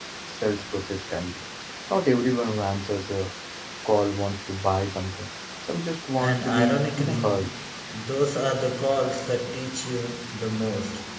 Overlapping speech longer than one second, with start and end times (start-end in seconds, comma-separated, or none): 6.2-7.5